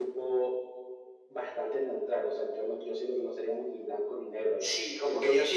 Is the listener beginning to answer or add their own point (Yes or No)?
Yes